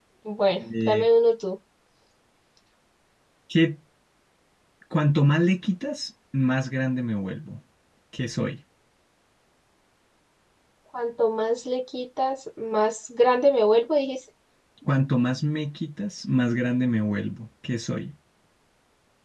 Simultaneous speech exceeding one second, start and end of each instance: none

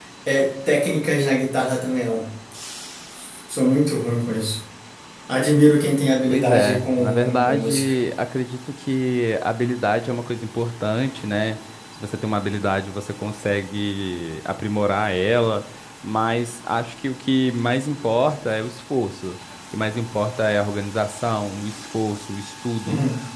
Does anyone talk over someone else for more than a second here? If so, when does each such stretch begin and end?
6.3-8.0

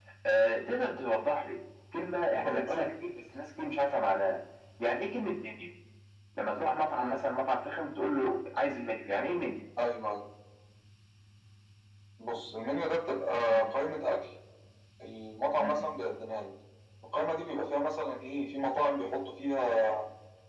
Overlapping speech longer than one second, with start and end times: none

